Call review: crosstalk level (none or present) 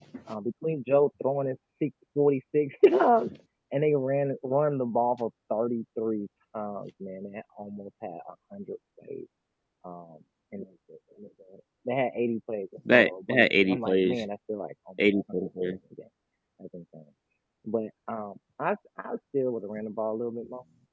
present